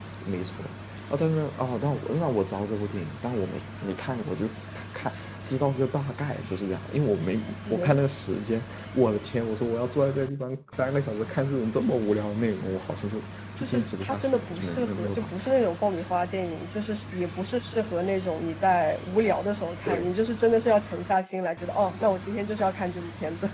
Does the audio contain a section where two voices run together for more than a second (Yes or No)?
Yes